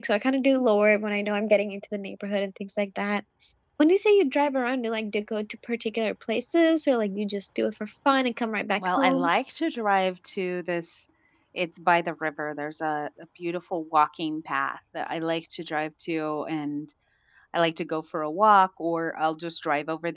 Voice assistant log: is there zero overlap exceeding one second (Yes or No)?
Yes